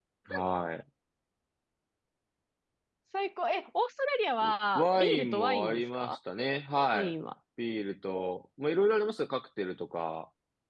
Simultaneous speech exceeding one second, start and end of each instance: 4.8-6.2

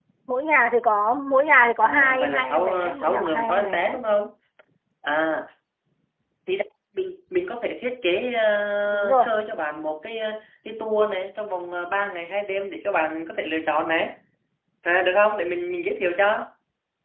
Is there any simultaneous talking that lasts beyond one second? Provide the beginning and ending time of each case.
1.8-4.0

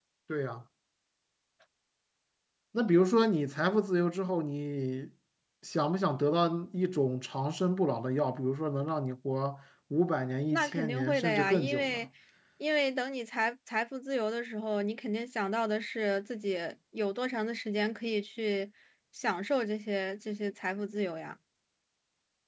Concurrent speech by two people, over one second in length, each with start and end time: 10.5-12.0

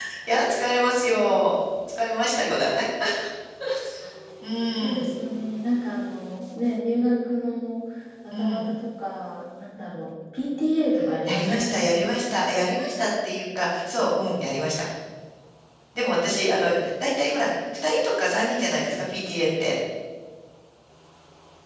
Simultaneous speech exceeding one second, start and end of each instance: none

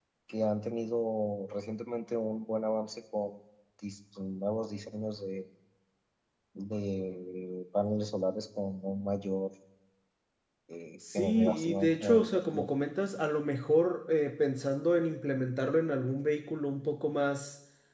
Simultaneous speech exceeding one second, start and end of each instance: 11.2-12.7

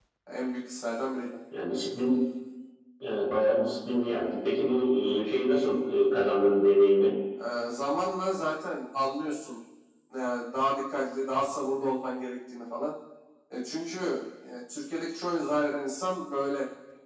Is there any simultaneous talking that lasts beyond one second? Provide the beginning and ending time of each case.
none

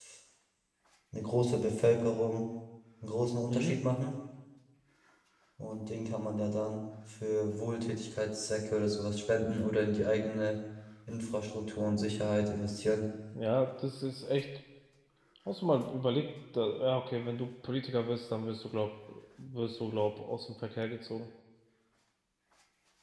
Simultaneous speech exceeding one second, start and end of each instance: none

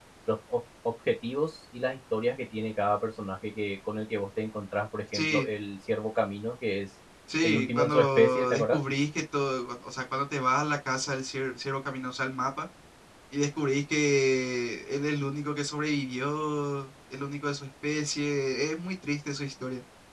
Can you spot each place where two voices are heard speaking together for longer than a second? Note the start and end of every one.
7.4-8.8

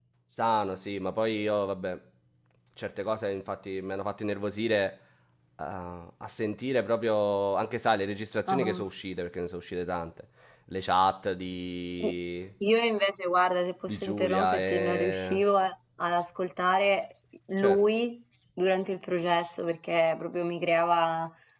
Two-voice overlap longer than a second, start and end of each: 13.9-15.4

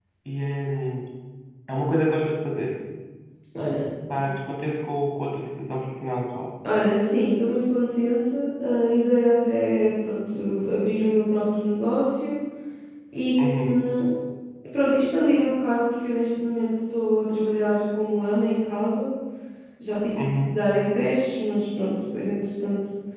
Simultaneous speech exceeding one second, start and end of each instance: none

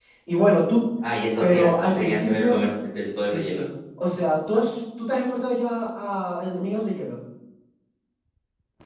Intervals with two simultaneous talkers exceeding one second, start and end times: 1.4-2.7

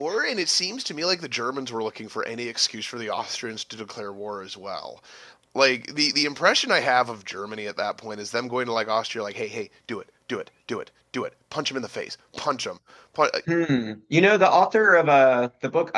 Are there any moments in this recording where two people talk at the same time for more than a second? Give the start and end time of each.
none

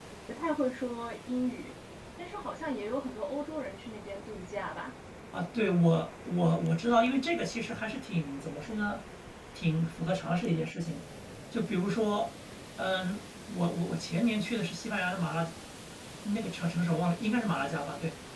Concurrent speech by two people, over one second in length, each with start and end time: none

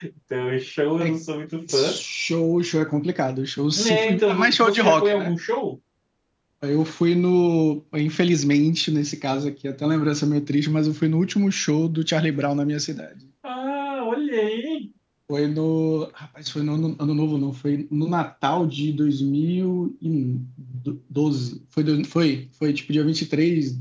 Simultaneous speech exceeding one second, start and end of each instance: 3.7-5.3

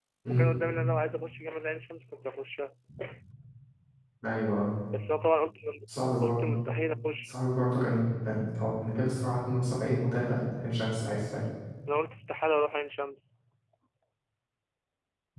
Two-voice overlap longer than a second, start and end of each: none

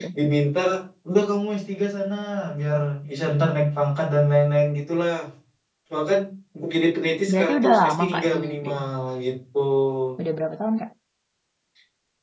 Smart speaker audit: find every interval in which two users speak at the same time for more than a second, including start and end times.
7.3-8.8

